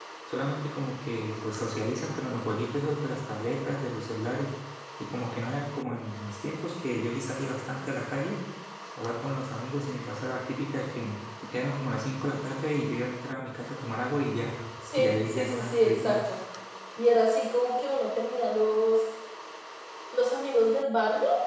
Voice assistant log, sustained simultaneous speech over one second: present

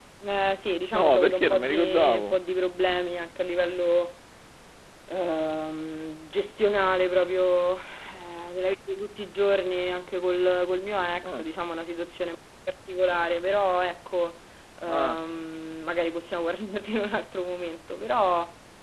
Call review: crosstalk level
present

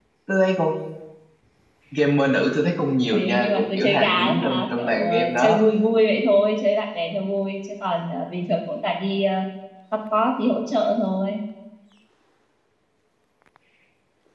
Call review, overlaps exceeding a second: present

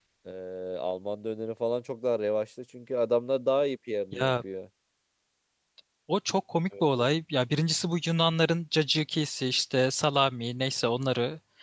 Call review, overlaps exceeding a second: none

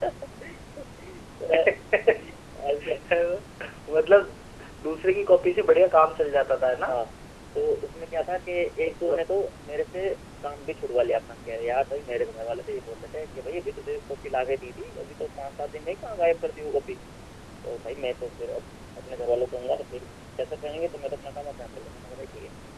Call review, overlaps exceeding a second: none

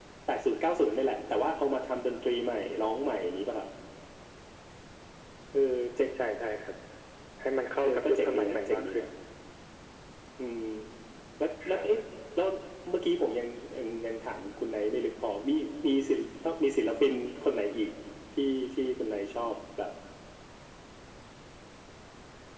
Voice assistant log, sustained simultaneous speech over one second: present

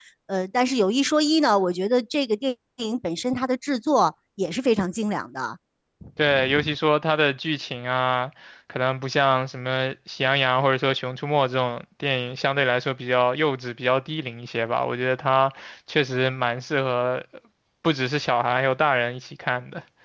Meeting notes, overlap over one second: none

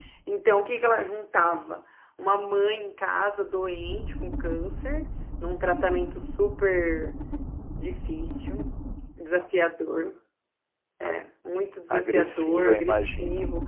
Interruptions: present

